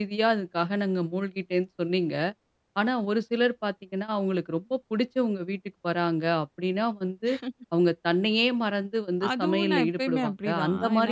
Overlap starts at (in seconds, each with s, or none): 9.2 s